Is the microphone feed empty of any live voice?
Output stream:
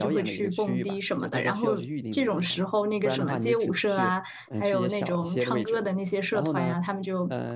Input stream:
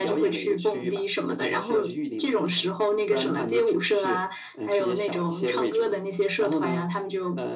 Yes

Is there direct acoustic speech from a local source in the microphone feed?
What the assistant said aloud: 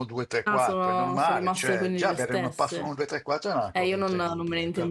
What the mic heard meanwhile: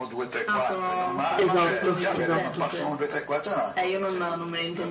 Yes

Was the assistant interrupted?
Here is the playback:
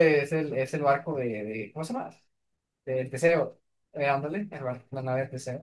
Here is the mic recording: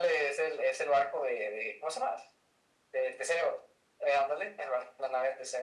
No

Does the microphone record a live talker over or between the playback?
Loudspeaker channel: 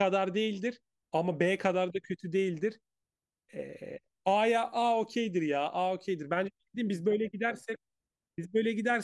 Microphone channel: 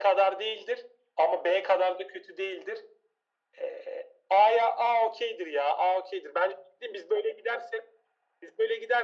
No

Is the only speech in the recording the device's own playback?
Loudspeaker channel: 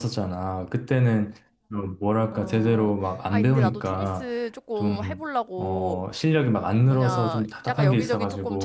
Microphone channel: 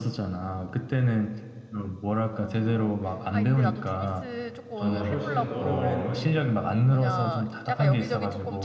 No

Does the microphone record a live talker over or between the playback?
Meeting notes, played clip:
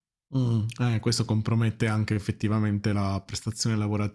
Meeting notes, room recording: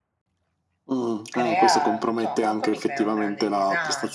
Yes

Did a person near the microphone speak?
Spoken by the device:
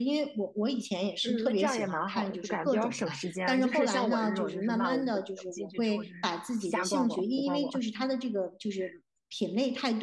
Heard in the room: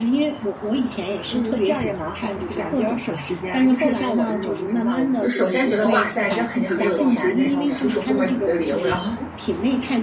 Yes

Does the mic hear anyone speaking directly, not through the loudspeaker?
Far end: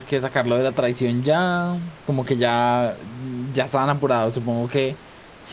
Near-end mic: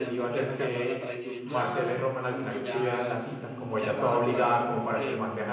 Yes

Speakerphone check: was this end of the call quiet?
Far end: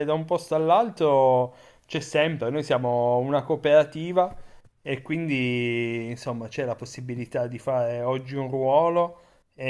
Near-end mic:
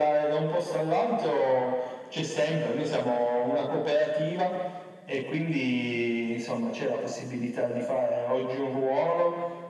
Yes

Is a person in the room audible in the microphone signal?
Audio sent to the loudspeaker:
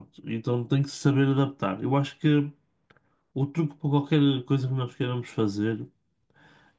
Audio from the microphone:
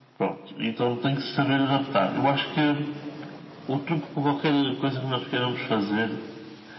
No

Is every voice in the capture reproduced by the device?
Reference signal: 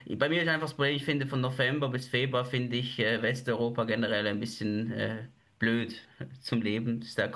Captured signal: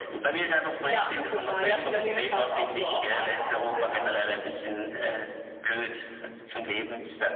No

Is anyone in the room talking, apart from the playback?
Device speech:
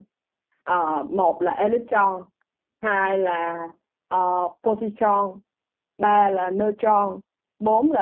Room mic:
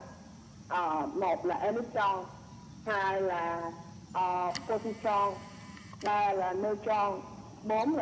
No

